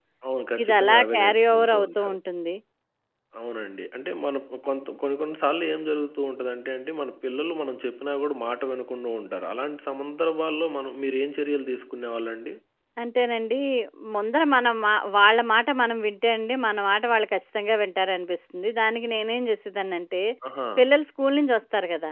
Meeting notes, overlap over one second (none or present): present